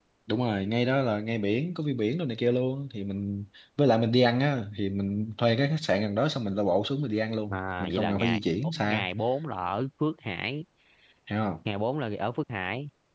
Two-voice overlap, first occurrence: 7.5 s

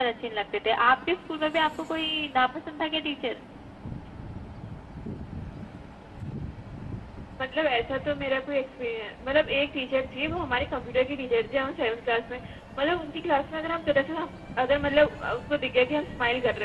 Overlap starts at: none

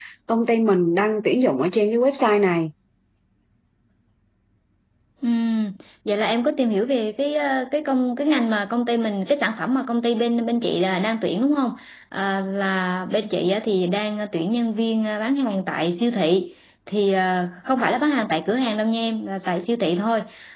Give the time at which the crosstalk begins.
none

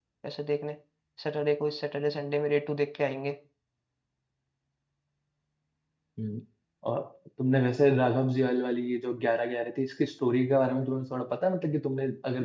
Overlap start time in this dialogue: none

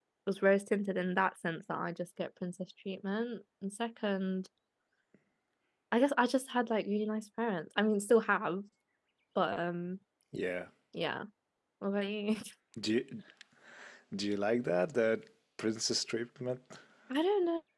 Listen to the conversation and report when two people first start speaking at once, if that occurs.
none

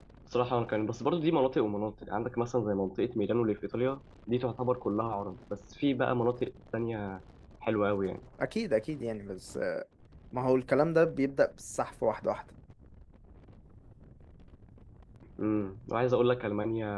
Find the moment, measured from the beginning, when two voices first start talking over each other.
none

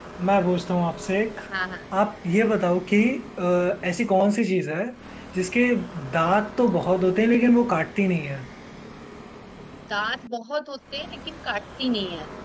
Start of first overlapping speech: none

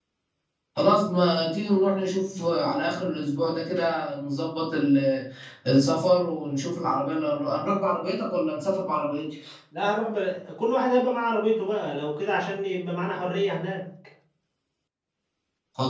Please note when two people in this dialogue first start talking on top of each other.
none

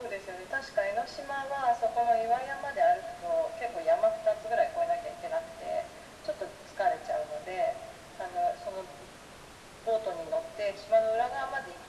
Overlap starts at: none

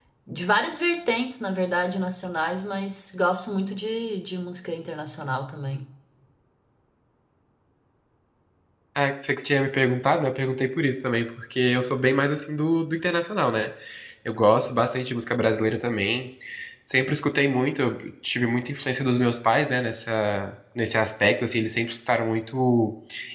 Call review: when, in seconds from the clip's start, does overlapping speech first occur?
none

